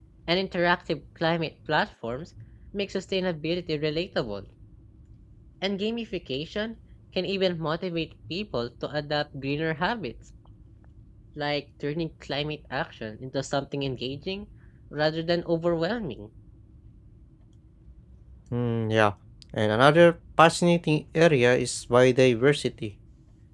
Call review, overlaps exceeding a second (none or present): none